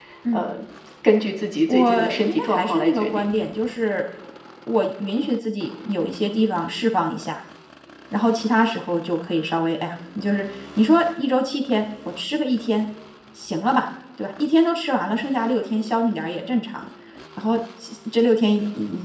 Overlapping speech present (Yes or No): Yes